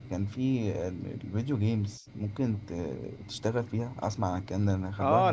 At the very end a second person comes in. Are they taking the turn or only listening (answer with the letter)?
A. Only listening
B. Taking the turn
B